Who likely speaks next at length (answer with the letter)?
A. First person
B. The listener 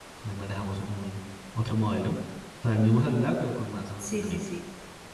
B